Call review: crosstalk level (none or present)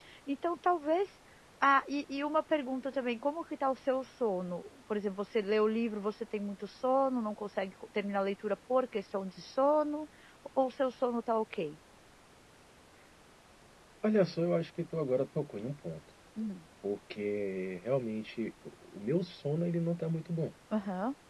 none